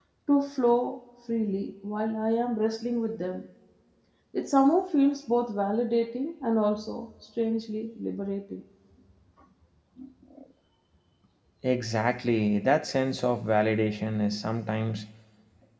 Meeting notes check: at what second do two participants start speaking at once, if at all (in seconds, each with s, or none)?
none